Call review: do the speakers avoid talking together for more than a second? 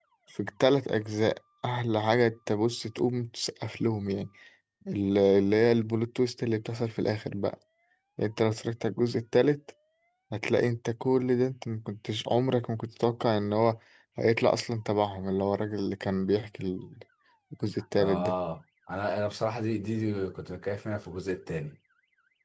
Yes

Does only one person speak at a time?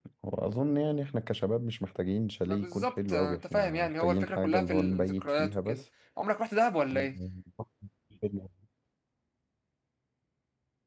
No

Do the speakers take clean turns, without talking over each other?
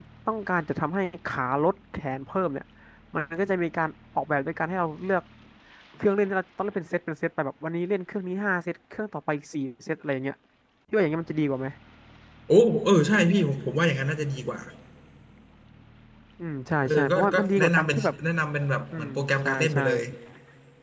No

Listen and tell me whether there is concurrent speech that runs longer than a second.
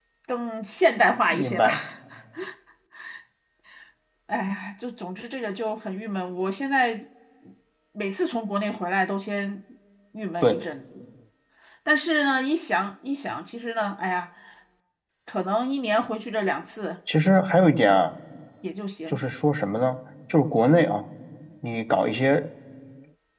No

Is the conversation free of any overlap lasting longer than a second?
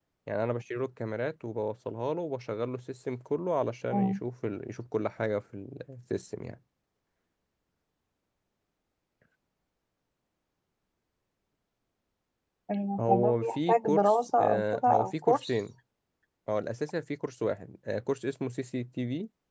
No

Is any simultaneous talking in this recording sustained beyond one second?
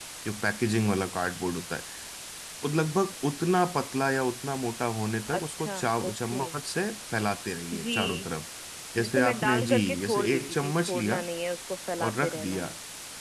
Yes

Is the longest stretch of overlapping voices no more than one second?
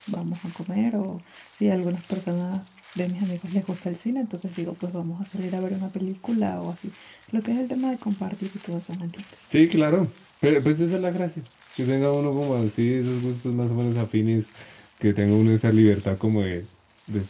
Yes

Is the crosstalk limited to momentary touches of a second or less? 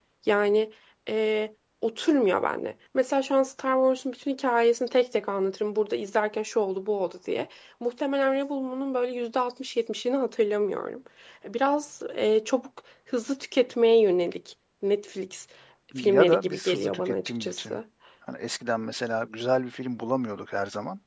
No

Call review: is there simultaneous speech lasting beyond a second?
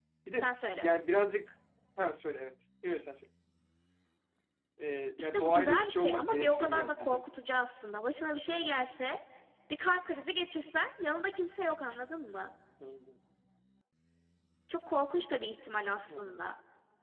Yes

